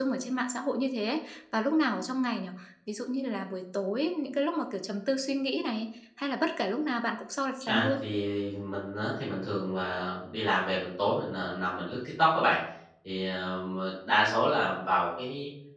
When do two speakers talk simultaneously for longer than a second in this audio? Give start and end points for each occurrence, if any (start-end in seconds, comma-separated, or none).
none